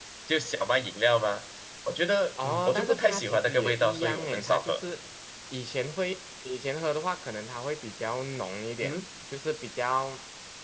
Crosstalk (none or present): present